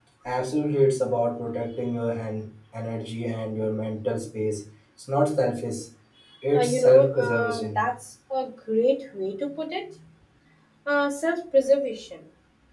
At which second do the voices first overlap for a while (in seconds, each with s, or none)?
6.5 s